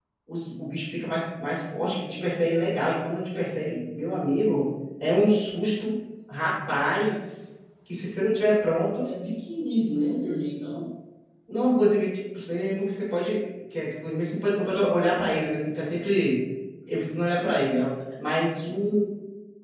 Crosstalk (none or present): none